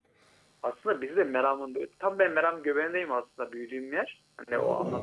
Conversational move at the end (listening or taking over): listening